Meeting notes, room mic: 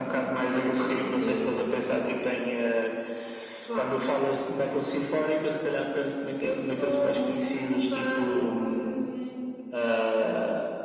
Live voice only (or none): none